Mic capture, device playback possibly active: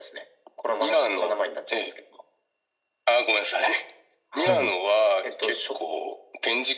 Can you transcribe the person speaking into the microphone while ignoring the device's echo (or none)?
はい。